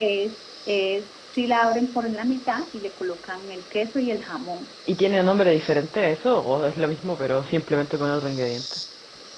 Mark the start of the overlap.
none

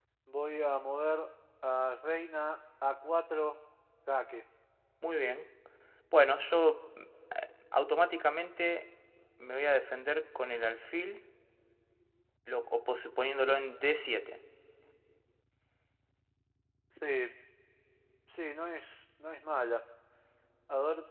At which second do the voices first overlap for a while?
none

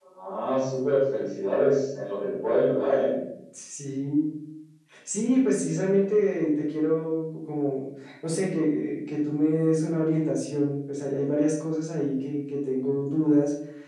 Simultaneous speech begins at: none

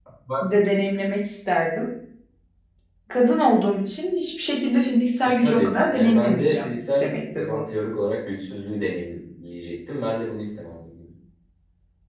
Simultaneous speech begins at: 5 s

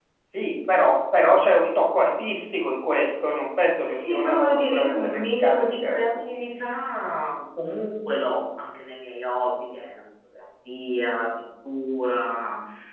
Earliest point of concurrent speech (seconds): 4 s

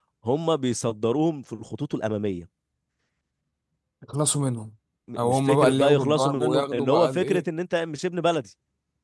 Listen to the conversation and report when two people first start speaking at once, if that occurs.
5 s

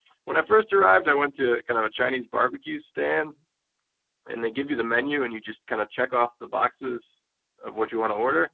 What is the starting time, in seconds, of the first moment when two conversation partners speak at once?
none

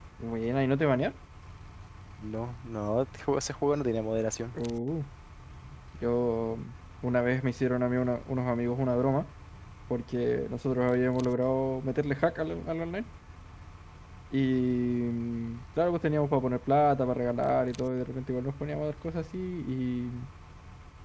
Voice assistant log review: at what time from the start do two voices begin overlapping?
none

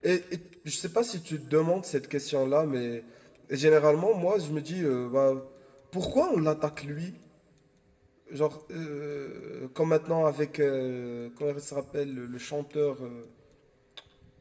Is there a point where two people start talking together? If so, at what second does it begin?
none

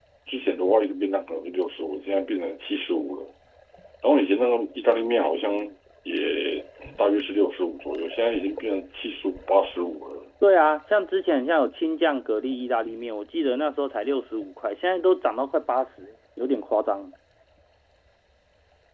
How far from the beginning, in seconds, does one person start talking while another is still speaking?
none

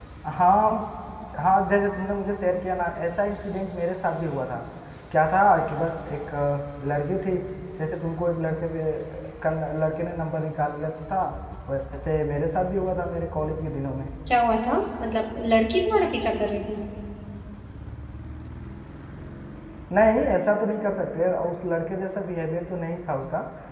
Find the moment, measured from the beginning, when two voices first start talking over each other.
none

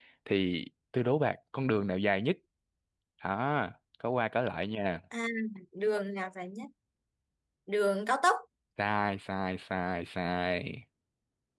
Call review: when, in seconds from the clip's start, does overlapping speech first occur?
none

